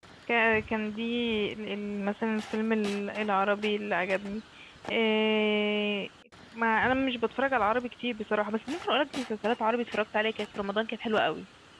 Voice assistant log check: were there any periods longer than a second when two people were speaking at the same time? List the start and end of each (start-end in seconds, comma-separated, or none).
none